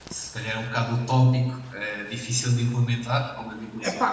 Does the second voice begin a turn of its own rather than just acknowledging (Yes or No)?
No